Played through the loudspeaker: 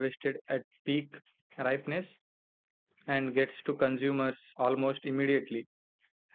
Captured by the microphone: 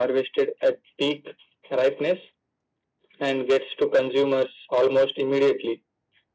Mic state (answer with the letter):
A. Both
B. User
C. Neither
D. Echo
D